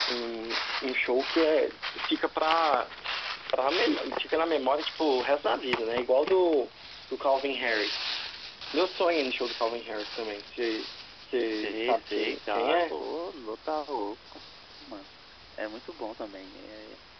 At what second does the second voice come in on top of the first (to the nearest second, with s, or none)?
12 s